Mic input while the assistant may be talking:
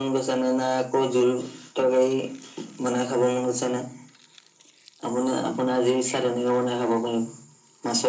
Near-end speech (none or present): none